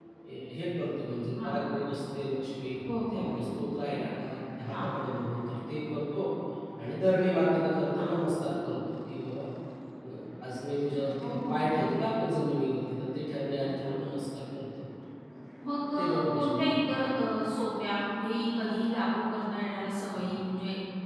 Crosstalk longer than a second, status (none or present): present